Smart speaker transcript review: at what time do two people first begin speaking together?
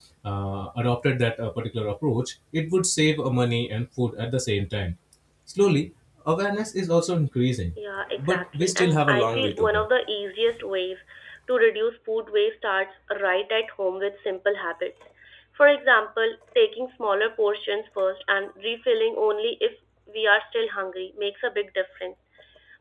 8.2 s

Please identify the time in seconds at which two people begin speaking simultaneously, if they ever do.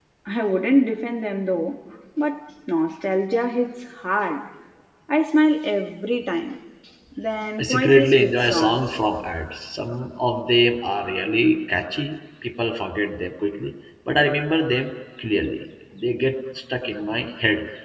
7.6 s

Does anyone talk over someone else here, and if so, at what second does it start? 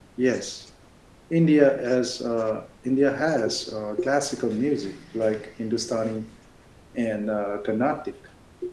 none

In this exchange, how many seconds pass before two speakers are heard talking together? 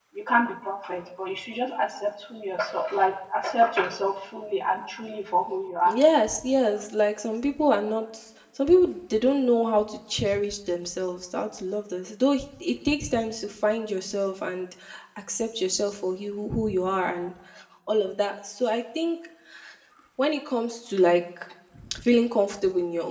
none

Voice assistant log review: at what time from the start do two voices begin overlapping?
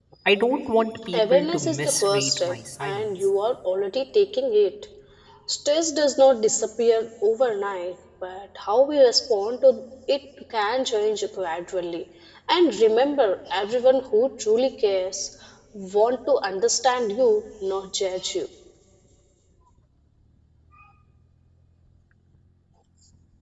1.1 s

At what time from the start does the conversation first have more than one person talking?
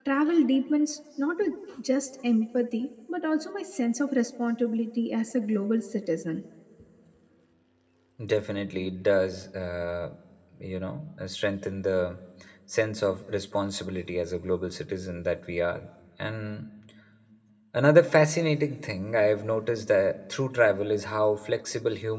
none

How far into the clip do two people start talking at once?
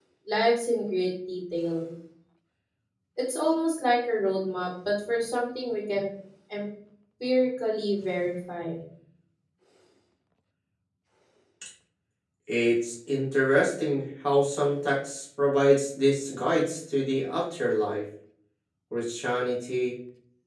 none

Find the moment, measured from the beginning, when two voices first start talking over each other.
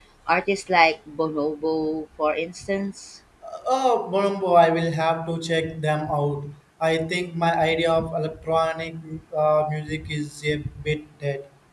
none

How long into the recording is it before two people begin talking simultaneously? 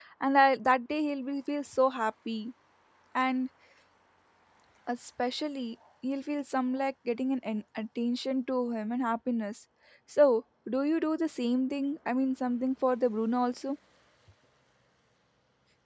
none

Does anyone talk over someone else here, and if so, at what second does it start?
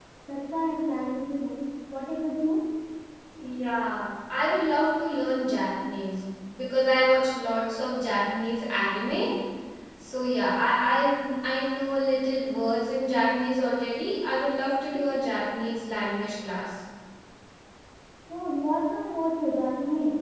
none

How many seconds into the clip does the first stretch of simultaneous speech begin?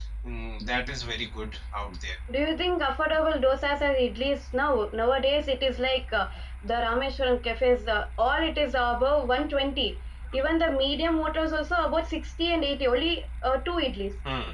none

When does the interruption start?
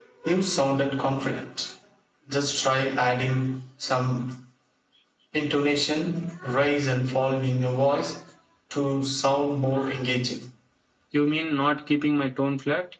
none

